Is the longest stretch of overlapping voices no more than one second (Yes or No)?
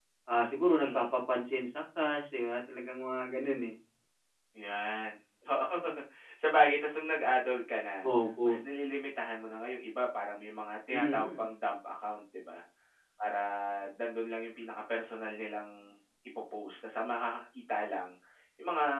Yes